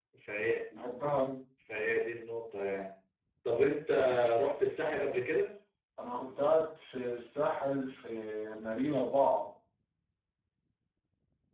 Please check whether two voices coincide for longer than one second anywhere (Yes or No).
No